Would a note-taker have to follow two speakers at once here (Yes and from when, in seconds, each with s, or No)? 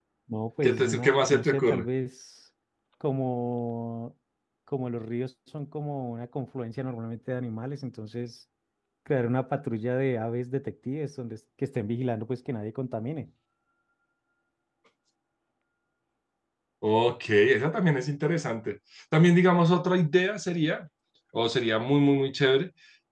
Yes, from 0.6 s